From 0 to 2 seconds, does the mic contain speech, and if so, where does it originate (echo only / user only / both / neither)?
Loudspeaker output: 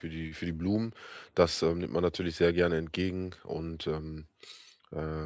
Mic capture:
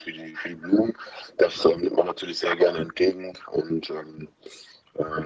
echo only